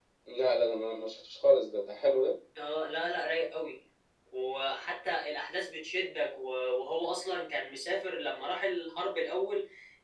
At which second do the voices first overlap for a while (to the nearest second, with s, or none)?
none